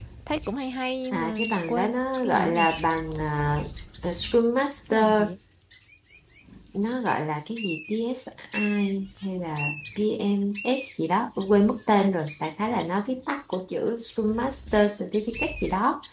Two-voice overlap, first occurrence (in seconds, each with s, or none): 1.1 s